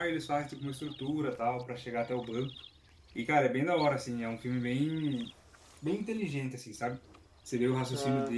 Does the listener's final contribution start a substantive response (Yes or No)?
No